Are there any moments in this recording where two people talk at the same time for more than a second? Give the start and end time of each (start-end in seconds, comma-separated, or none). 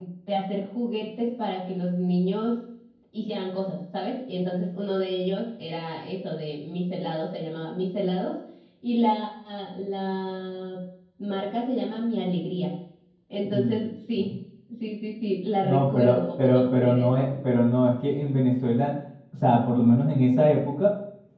15.6-17.1